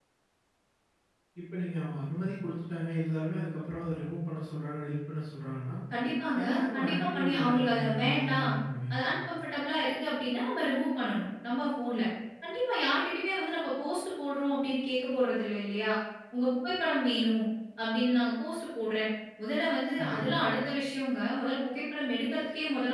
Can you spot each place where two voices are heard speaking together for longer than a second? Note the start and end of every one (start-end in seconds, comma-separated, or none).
6.4-8.5